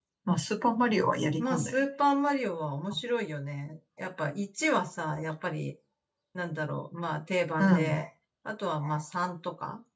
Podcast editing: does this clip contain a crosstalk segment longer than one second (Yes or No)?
No